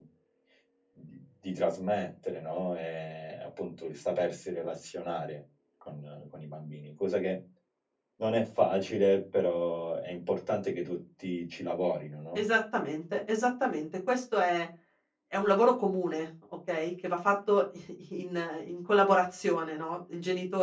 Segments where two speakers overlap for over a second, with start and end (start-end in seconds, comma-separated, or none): none